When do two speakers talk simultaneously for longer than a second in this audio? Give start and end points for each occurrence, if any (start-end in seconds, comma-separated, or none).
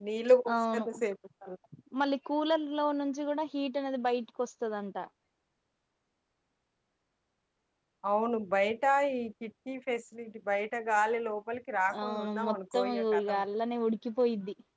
12.0-13.4